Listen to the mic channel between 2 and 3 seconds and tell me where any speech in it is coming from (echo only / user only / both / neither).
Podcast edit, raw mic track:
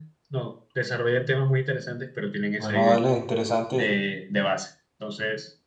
both